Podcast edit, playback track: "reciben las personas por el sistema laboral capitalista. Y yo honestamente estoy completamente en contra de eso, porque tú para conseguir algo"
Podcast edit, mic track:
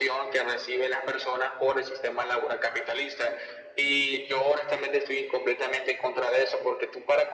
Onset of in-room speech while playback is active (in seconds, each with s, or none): none